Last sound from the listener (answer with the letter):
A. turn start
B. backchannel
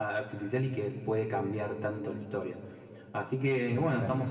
B